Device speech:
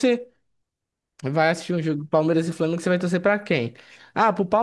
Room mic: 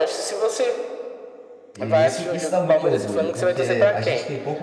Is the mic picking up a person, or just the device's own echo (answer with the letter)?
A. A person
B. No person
A